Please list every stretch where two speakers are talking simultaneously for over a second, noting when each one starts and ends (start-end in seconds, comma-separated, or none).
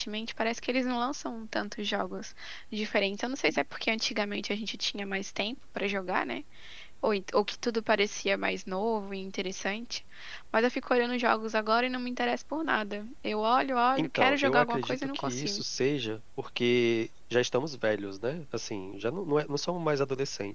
14.0-15.6